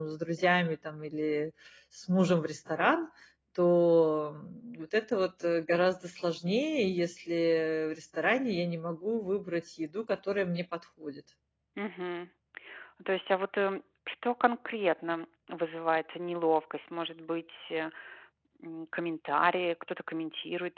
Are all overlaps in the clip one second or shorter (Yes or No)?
Yes